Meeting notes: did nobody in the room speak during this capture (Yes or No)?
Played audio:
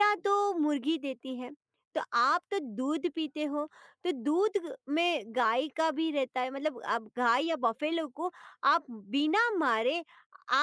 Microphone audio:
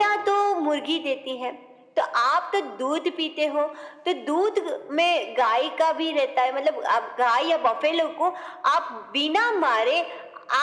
Yes